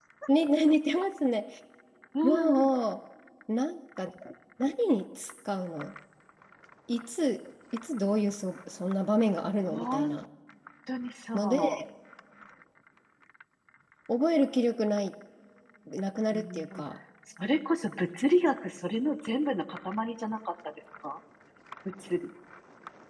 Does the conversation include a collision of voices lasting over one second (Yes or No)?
No